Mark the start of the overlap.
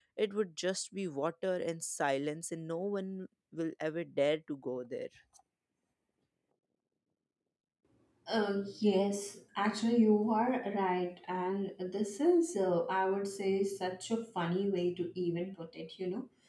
none

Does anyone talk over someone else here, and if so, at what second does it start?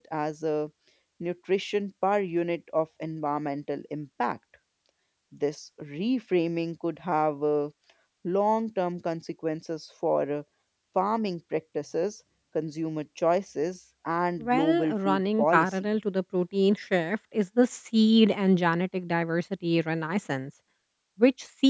14.4 s

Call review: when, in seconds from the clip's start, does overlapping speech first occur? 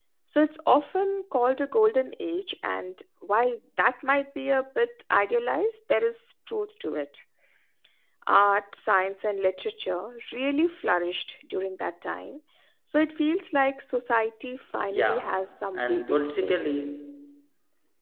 14.9 s

